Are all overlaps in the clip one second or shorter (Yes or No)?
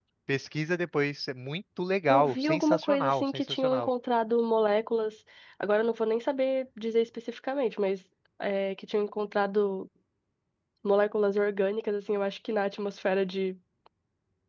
No